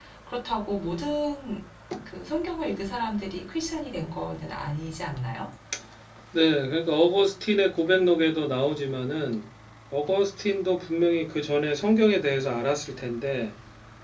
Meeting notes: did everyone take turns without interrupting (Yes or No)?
Yes